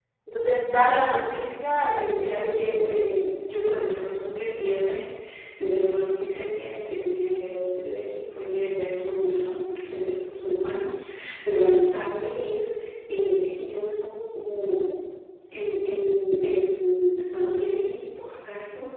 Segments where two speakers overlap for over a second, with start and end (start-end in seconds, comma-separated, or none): 1.8-3.0